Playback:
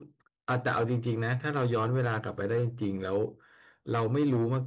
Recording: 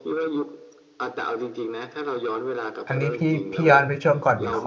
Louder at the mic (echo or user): user